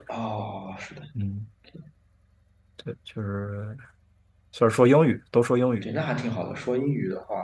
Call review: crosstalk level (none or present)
none